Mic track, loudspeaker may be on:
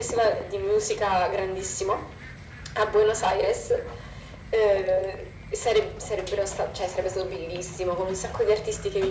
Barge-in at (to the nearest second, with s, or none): none